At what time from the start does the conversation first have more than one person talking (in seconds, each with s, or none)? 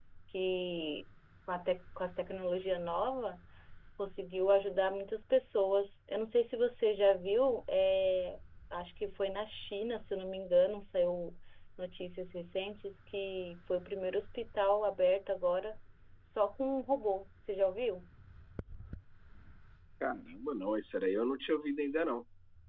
none